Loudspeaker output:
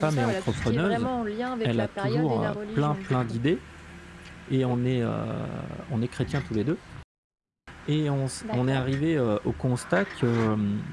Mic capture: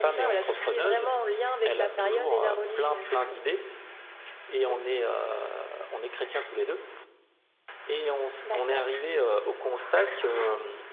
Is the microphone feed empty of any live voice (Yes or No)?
Yes